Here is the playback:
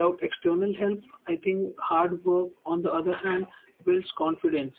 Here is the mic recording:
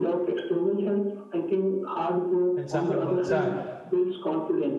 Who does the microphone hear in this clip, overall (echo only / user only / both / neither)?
both